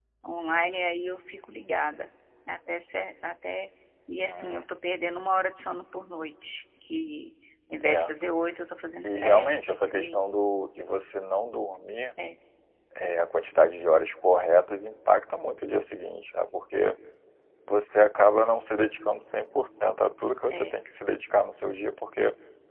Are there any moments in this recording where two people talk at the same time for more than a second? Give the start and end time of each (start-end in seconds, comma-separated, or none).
9.0-10.4